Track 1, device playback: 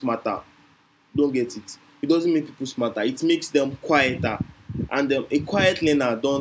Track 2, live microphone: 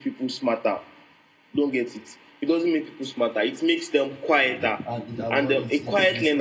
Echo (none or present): present